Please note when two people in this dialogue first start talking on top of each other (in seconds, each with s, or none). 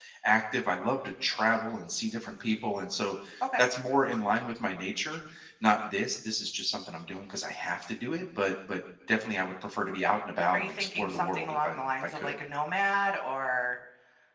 10.5 s